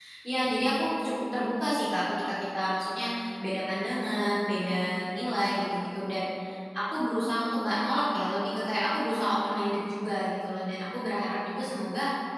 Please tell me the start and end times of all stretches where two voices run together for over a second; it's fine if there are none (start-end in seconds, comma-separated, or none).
none